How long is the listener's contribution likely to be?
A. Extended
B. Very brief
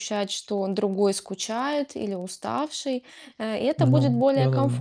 B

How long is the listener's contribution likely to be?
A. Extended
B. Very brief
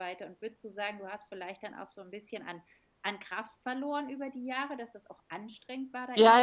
A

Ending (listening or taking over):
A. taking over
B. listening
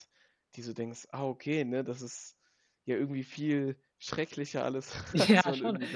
A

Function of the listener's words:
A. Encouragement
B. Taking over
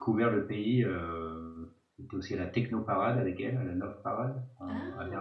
B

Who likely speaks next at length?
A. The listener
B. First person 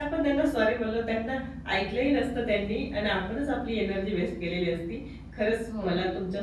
B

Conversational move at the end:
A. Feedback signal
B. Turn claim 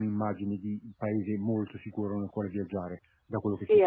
B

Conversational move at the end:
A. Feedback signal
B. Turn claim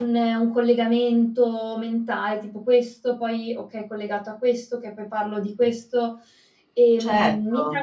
B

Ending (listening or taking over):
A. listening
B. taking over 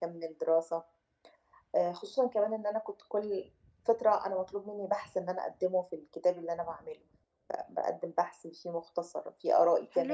B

